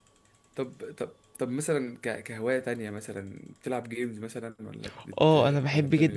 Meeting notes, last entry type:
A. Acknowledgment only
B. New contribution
B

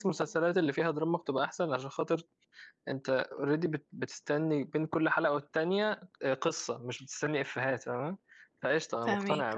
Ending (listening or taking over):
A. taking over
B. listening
B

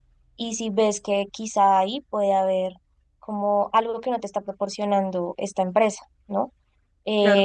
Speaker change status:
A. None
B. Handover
A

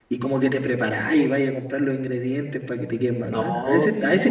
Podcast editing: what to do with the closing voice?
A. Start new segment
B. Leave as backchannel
A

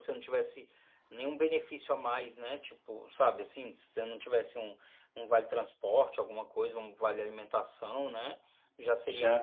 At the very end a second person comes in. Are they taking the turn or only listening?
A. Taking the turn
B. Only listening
B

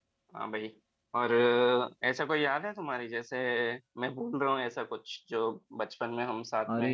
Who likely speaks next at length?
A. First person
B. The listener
B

